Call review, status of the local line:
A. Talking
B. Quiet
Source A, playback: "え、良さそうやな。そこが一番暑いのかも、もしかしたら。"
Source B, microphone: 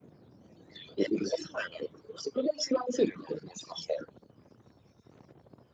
B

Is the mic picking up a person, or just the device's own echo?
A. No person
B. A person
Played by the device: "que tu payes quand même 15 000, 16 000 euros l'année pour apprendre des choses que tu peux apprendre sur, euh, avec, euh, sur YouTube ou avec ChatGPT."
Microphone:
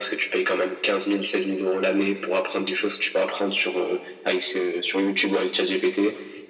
A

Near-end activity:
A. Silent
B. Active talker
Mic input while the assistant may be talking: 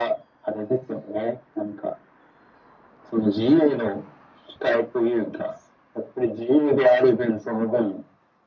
A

